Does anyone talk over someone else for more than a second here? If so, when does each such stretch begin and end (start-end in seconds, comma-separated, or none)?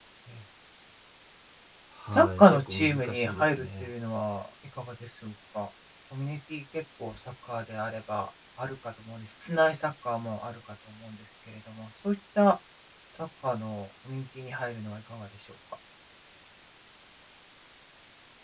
2.1-3.9